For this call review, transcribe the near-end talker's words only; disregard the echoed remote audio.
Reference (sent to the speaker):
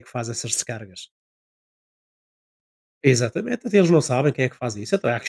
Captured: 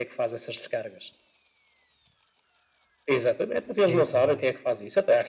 Sim, também.

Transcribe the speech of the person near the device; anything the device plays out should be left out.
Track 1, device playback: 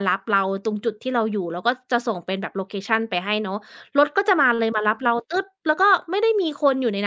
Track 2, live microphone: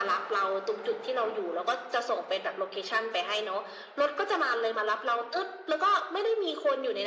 none

